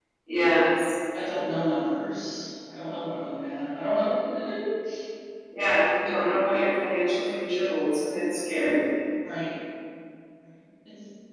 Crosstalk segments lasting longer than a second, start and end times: none

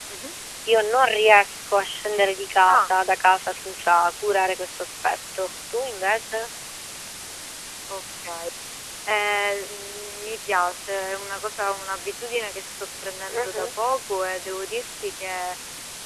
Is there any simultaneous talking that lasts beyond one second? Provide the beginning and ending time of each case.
none

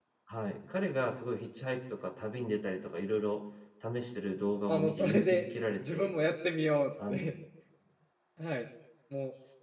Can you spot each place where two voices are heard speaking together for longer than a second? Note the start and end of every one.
4.7-6.1

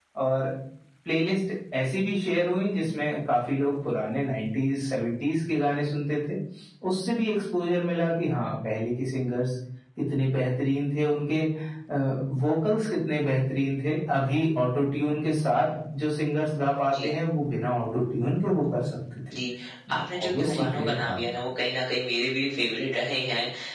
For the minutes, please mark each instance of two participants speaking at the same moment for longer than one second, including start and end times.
19.9-21.2

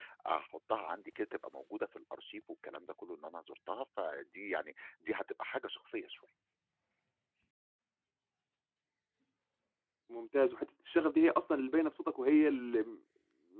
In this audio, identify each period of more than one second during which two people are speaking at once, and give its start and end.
none

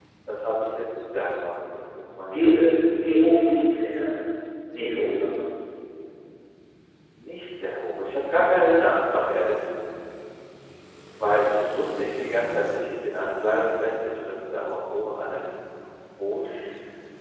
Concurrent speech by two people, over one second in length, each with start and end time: none

